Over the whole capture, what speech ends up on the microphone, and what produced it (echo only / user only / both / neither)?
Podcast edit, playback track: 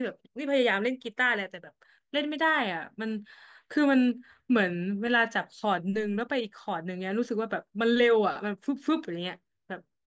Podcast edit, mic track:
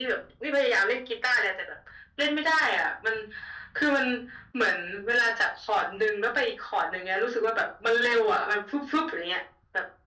echo only